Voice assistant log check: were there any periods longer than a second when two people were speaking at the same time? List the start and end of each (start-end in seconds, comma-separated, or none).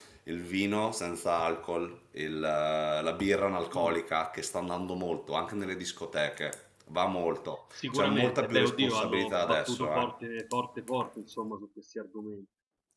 7.8-10.0